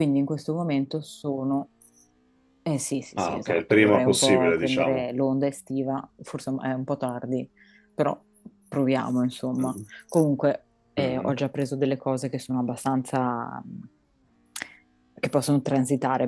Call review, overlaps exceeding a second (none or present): present